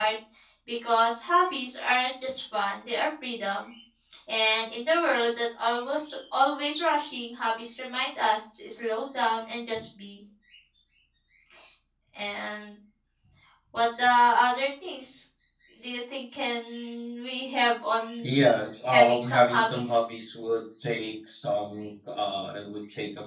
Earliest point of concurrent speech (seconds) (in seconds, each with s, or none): 18.9 s